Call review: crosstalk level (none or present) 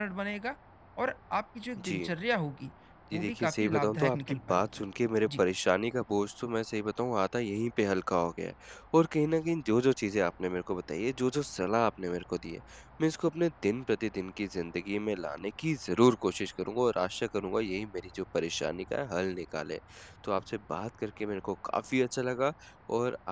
present